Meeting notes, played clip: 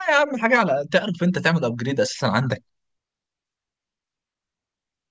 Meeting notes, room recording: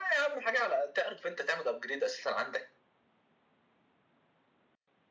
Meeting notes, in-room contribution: none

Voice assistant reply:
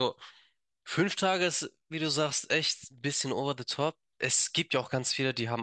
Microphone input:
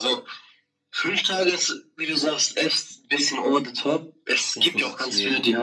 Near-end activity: present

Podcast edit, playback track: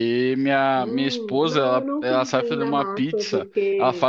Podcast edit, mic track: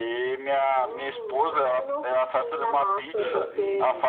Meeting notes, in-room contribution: present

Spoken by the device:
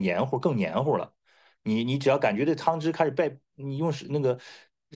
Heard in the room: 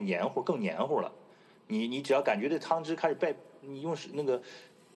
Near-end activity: none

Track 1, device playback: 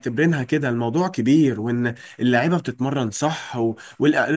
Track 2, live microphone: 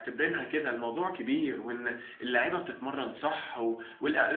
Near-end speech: none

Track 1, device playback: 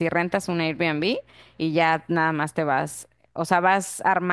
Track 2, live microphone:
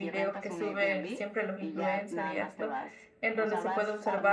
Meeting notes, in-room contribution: present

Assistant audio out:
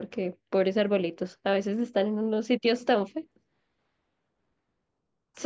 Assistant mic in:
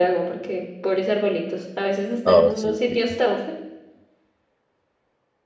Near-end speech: present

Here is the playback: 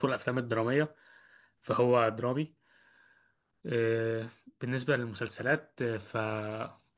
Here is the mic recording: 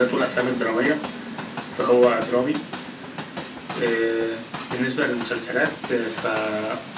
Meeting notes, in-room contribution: none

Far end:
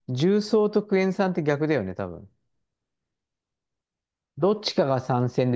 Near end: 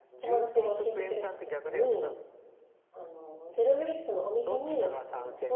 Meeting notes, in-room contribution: present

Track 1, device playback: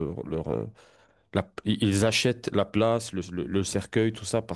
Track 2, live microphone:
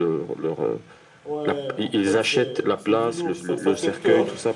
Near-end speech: present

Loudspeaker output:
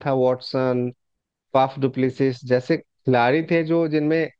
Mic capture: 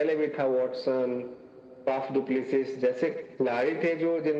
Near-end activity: none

